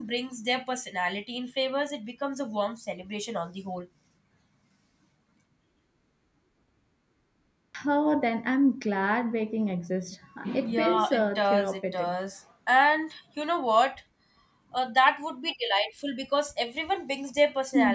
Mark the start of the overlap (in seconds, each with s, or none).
10.6 s